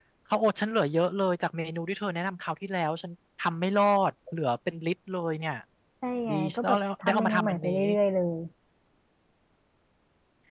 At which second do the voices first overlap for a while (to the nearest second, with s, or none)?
6 s